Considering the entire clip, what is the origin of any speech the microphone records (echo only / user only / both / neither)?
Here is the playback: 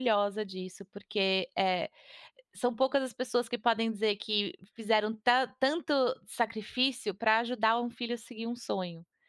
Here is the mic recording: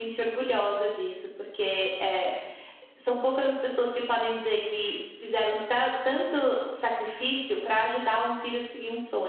echo only